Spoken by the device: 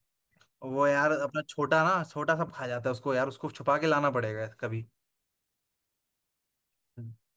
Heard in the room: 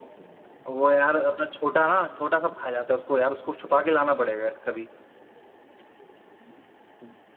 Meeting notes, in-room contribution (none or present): none